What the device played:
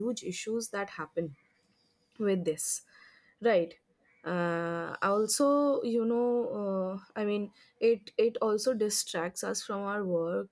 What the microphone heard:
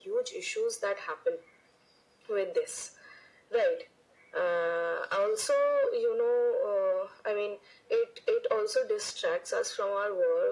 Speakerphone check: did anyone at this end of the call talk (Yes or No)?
No